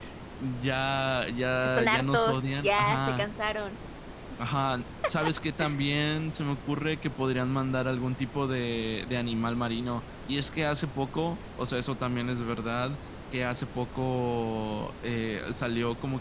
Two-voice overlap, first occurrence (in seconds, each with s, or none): 1.8 s